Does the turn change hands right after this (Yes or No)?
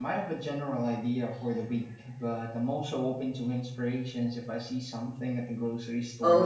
Yes